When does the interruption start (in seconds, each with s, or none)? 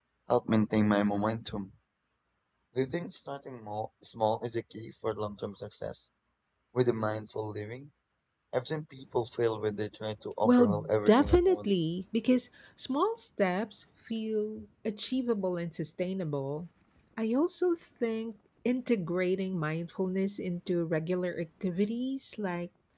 10.4 s